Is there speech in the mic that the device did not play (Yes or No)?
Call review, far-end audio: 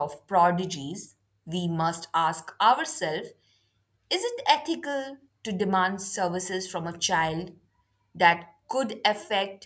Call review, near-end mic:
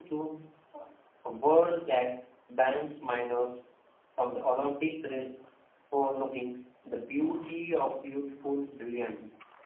Yes